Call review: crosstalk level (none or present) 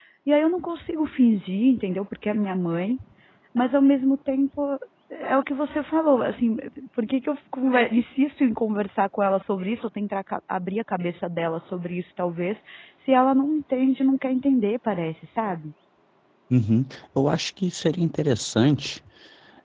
none